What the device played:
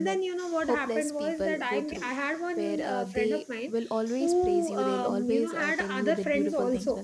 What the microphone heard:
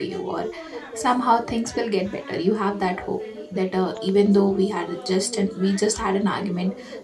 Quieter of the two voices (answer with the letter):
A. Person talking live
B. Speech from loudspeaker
B